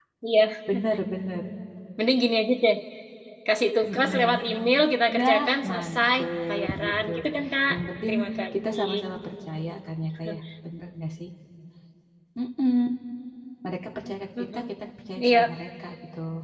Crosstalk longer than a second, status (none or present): present